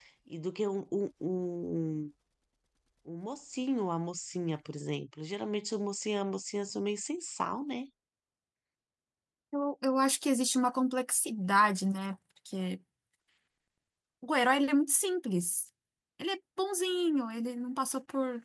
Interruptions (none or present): none